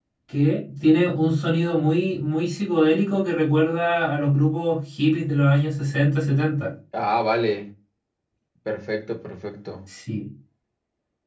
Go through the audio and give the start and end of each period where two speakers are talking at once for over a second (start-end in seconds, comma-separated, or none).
none